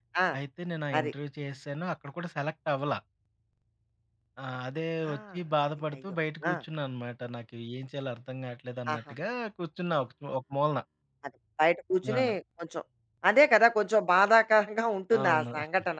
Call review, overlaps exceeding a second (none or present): none